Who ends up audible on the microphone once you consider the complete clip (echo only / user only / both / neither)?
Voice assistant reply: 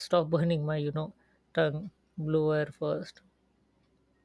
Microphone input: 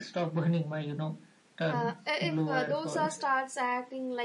both